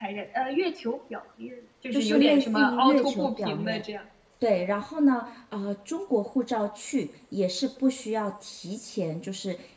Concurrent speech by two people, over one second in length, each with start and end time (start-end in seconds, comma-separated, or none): 1.9-3.8